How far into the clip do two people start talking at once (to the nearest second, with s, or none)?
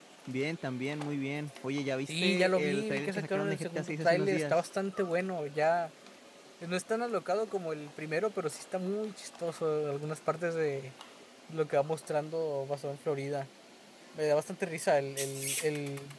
2 s